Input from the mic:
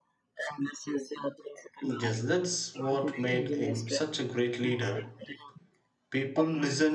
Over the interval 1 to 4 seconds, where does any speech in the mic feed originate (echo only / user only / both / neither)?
both